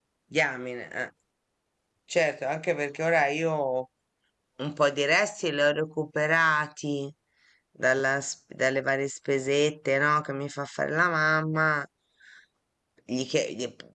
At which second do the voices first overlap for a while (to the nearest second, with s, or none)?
none